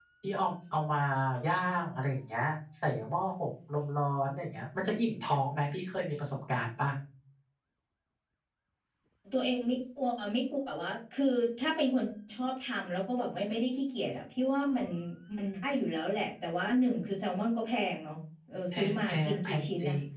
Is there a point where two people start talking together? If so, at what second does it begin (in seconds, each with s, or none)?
18.7 s